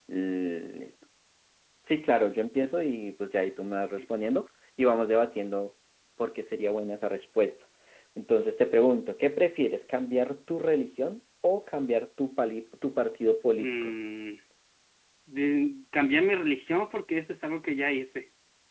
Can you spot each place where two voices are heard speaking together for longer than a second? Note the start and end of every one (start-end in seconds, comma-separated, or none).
none